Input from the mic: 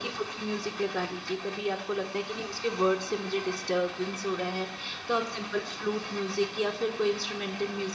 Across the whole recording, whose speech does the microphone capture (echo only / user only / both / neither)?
echo only